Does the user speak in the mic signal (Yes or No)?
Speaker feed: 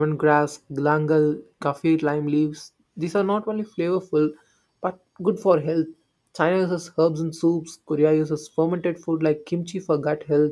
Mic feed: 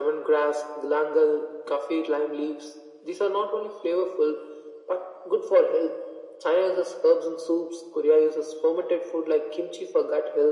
No